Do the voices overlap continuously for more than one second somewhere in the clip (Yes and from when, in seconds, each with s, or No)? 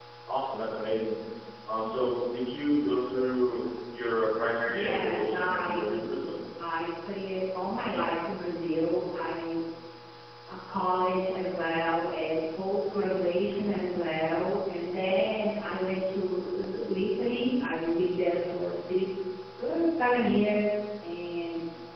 Yes, from 4.6 s